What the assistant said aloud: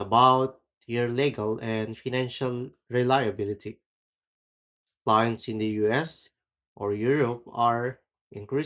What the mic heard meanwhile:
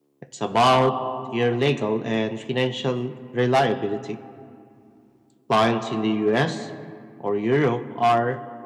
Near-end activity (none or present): none